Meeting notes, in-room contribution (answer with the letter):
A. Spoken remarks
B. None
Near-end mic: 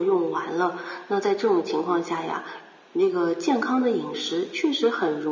B